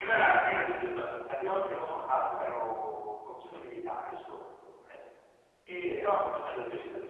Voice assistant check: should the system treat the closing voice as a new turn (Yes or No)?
No